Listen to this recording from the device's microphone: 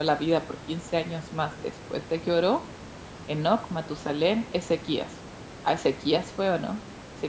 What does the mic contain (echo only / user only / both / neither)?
user only